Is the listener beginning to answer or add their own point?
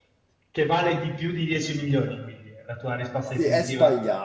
Yes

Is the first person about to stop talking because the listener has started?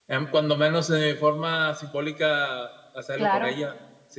No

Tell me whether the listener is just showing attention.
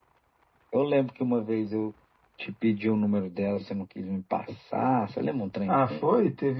No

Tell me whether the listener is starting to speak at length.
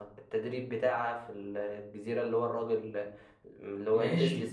Yes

